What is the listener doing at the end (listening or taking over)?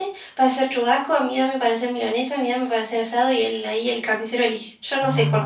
taking over